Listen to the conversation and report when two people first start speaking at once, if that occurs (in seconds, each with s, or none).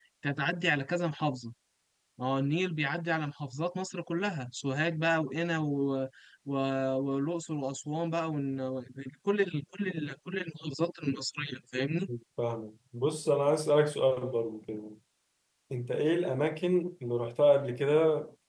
none